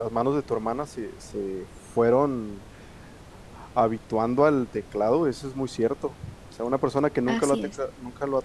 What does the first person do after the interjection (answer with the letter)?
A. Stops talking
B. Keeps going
B